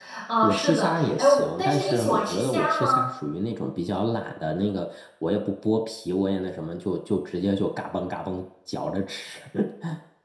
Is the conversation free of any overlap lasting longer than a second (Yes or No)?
No